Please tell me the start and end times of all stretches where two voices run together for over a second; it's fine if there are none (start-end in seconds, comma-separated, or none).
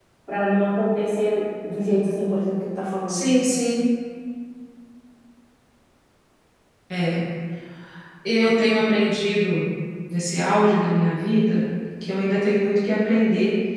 none